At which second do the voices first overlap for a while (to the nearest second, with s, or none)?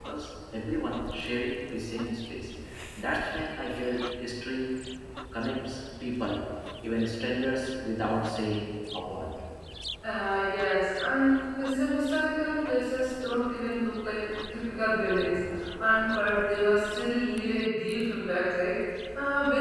none